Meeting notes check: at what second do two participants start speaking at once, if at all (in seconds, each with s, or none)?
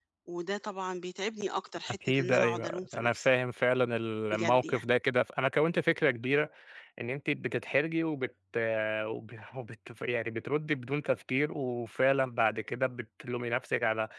1.9 s